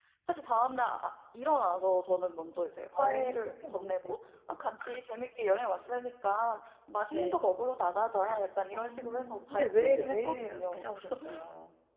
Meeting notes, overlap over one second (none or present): present